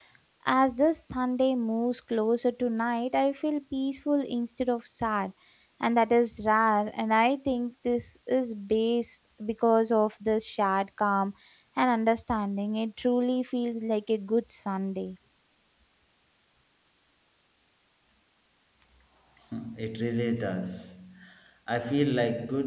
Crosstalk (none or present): none